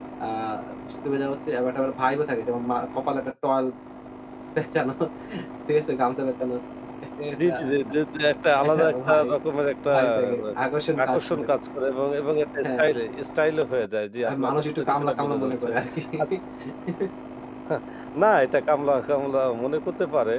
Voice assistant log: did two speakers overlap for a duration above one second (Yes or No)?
Yes